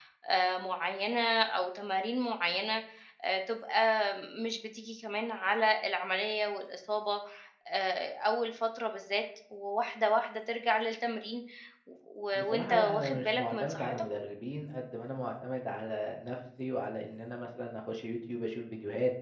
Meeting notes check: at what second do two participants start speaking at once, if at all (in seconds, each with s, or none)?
12.3 s